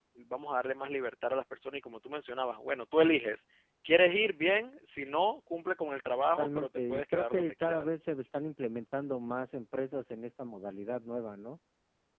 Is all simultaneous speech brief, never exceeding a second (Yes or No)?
No